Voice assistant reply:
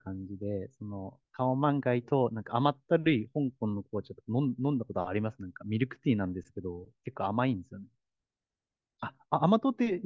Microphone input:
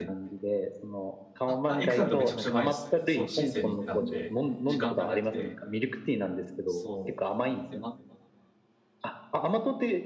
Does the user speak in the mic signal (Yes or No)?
Yes